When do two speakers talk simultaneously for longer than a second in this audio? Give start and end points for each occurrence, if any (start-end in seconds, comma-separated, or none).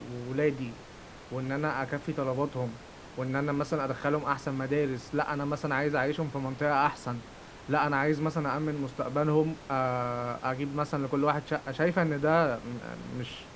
none